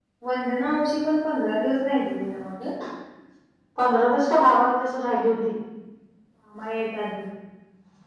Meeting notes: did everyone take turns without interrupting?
Yes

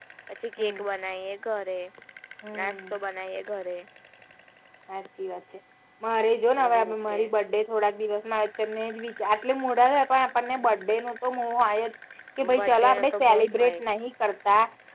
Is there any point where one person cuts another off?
Yes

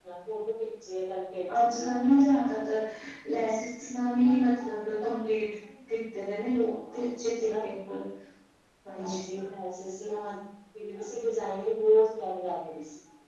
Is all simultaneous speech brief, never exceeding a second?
Yes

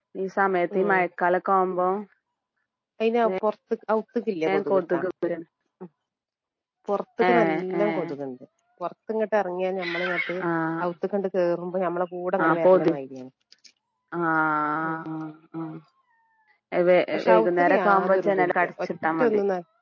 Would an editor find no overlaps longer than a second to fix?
No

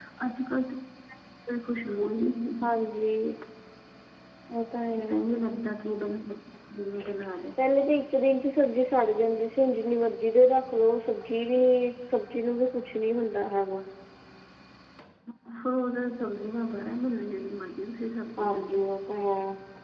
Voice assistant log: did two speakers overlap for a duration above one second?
No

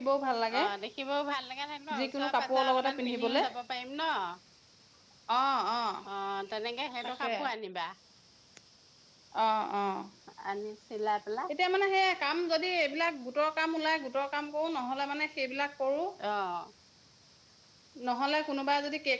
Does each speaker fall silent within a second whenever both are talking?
No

